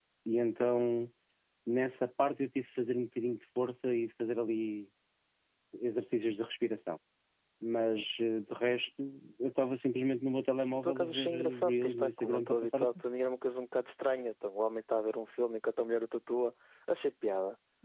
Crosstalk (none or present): present